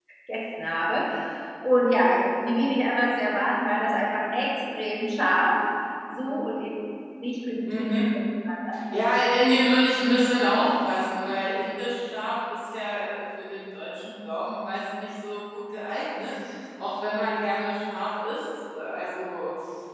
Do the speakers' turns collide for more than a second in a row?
No

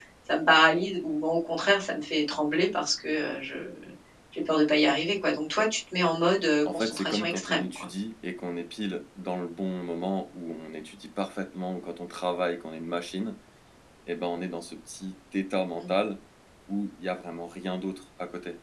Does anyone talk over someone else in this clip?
Yes, from 6.6 s

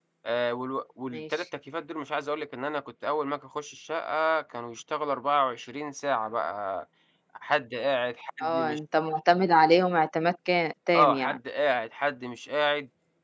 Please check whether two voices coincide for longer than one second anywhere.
No

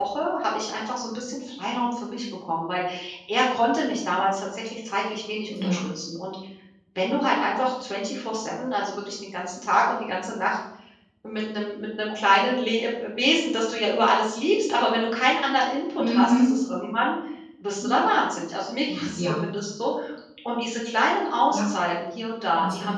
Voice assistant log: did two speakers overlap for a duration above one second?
No

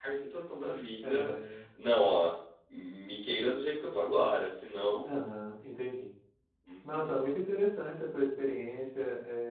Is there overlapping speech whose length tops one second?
No

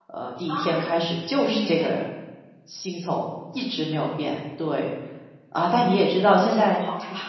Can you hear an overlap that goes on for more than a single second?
No

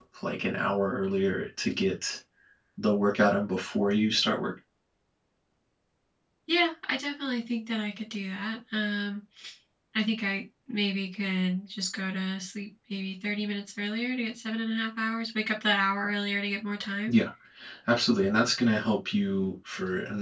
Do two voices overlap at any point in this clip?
No

